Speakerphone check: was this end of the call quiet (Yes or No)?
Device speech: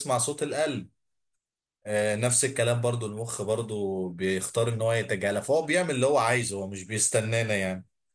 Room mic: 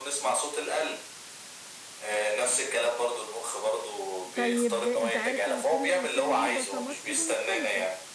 No